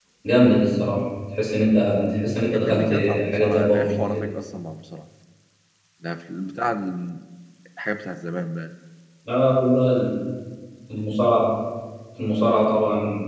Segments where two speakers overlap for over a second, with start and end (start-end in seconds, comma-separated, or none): 2.5-4.2